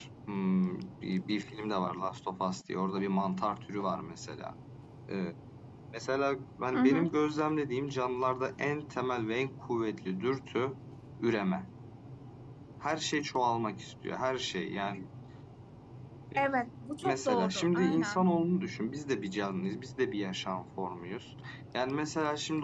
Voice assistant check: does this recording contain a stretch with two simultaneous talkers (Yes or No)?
Yes